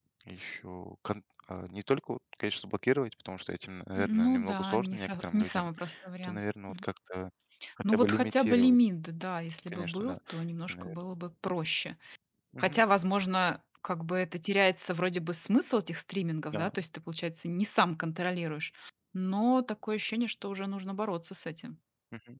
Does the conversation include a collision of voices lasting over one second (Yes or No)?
Yes